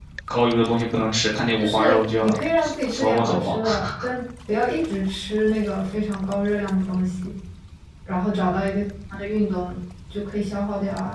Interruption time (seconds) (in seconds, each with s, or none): 1.6 s